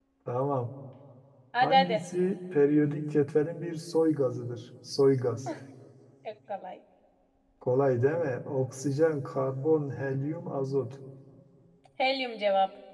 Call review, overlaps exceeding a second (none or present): none